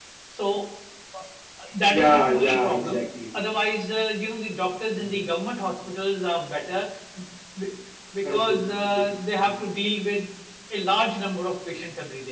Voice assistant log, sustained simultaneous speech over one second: present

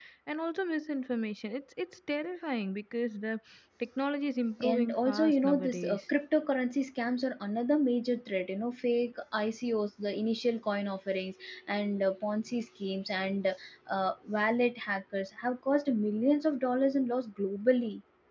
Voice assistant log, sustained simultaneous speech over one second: present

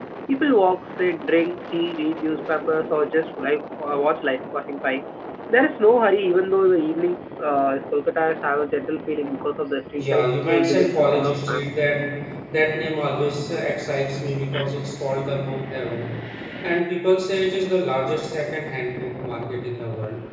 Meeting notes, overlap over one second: present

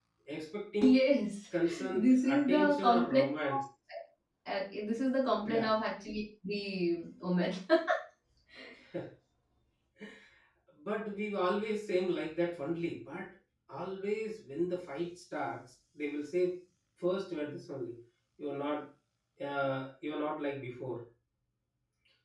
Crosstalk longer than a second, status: present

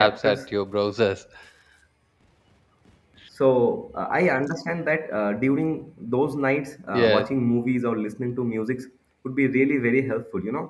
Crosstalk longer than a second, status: none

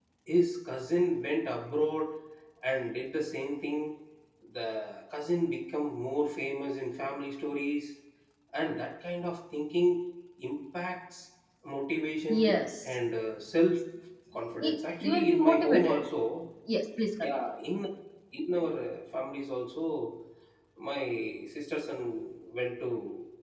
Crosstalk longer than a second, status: present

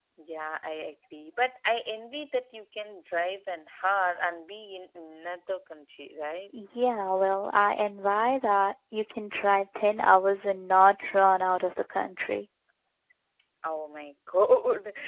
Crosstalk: none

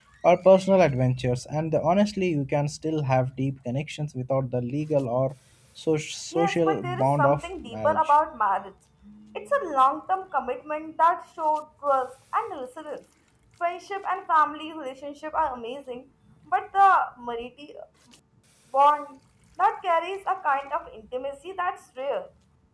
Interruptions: present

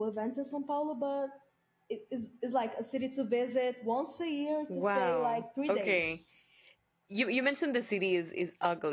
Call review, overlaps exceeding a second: present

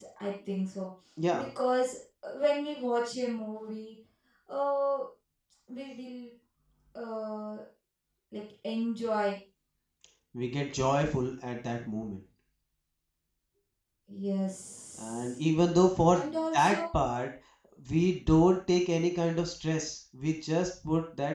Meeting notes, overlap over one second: none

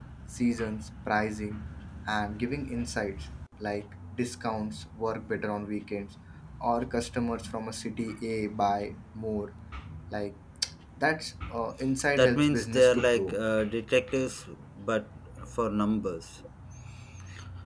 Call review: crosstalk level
present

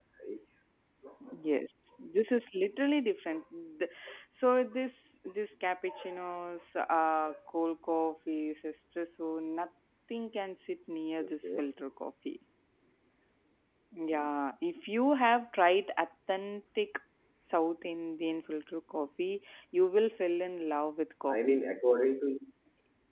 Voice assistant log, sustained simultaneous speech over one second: none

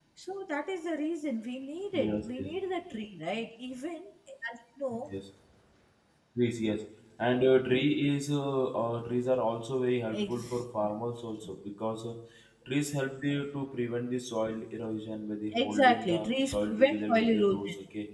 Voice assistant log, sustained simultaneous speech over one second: present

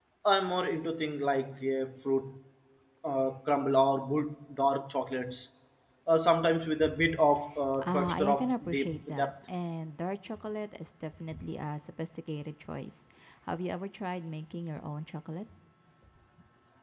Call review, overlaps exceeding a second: present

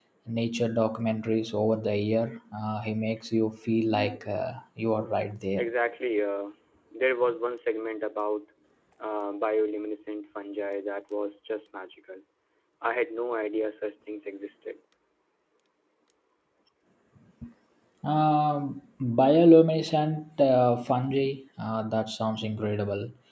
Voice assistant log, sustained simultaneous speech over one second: none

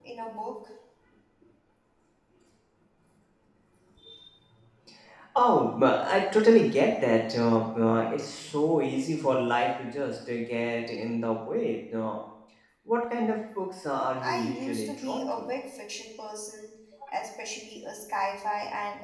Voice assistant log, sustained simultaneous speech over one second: present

